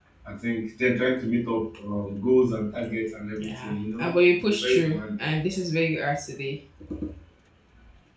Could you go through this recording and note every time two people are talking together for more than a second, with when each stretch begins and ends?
3.4-5.3

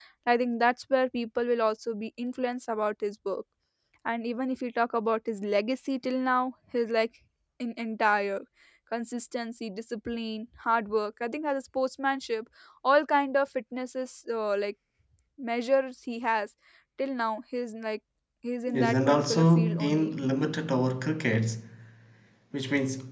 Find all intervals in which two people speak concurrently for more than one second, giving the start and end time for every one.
18.7-20.1

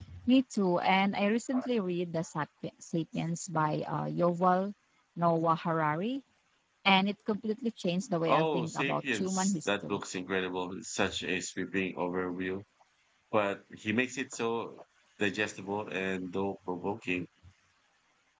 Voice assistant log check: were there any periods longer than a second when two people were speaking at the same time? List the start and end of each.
8.3-10.0

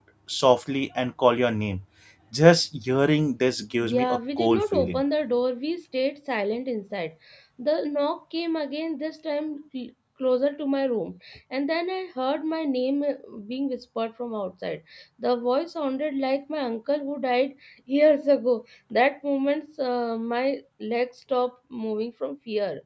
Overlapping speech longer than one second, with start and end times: 3.8-5.0

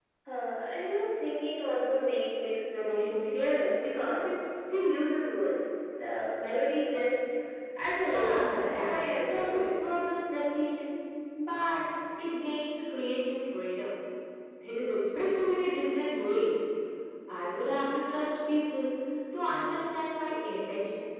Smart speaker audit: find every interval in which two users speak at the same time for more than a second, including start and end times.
8.0-9.7

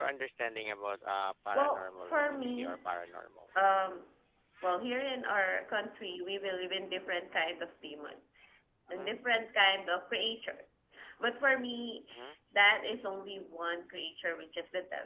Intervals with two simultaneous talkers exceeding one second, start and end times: 1.5-2.8

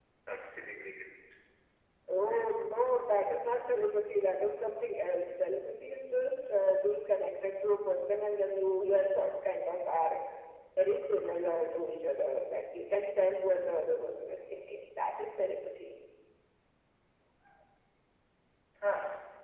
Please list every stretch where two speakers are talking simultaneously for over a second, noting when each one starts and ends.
none

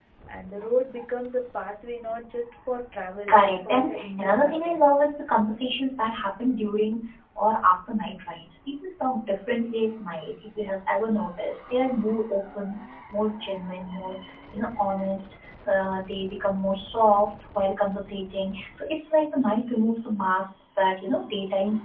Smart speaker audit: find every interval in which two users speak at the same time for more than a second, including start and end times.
3.3-4.9

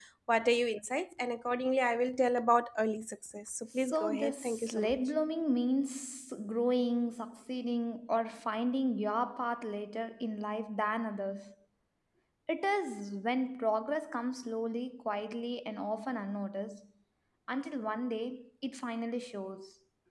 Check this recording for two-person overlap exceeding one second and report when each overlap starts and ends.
3.8-5.0

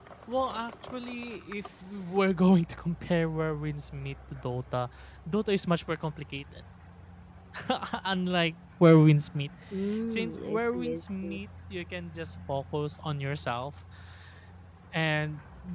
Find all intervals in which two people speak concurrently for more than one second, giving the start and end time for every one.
10.1-11.4

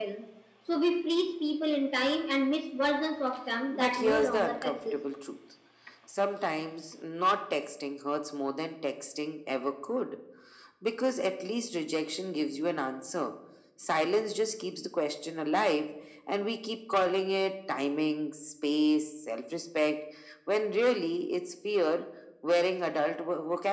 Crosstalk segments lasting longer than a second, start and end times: 3.7-5.0

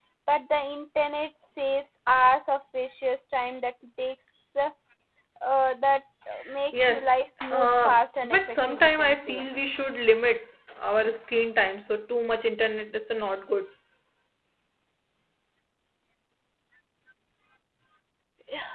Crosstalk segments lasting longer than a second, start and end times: 7.5-9.5

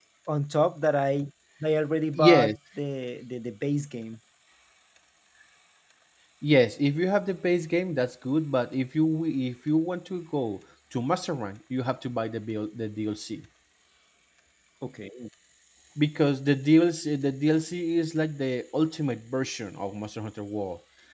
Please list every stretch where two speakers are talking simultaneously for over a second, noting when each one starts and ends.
none

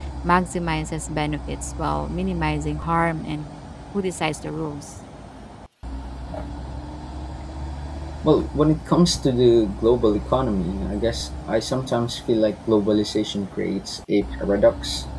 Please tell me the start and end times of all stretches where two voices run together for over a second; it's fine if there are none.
none

